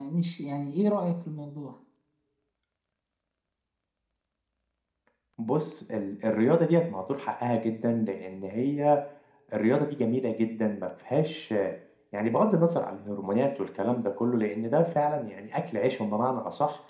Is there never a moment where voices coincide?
Yes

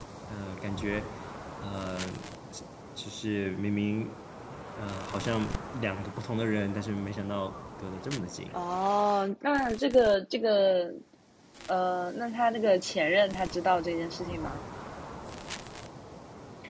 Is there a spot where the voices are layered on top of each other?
No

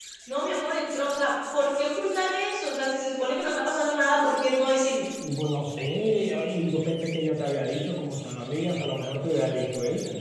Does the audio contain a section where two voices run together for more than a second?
No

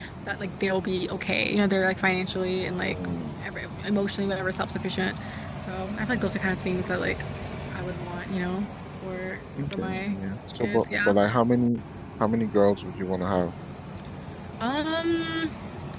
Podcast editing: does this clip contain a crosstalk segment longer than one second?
No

